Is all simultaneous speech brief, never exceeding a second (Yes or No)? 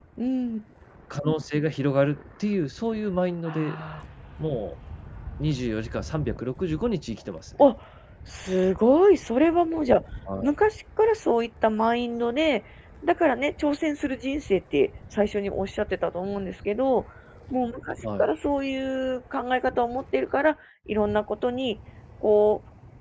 Yes